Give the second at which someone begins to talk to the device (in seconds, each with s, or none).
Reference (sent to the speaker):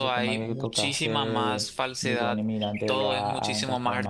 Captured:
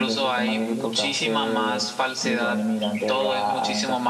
none